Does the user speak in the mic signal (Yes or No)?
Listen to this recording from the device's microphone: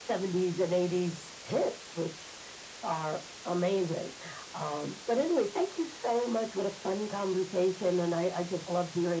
No